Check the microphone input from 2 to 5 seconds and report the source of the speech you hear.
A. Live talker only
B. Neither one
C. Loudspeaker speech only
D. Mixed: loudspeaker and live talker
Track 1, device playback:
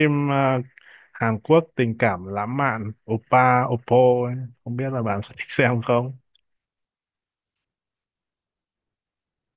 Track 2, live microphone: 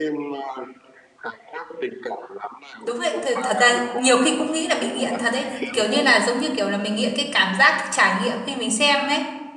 D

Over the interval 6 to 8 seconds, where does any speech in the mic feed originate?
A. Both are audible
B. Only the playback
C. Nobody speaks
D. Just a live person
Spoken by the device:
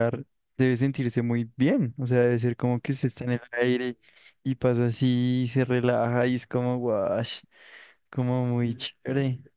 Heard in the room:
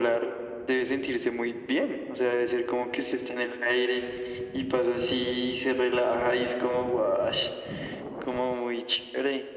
B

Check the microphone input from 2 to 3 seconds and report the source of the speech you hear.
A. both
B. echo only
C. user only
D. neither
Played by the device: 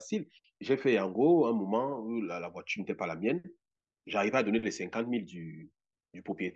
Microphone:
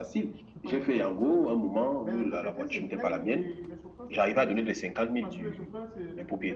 A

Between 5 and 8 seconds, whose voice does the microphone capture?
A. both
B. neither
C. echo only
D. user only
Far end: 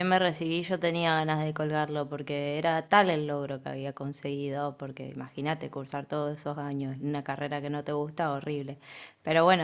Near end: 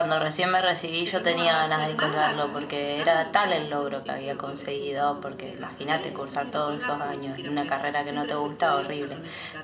A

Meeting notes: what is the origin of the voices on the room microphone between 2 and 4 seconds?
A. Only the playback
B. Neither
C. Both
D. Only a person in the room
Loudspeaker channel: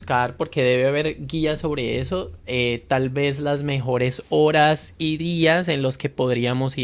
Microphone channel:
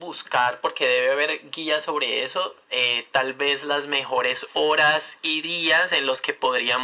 A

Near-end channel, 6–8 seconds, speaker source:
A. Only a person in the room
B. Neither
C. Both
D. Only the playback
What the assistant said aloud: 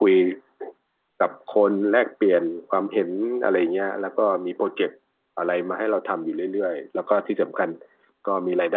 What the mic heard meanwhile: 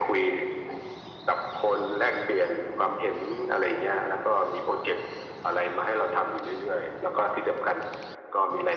D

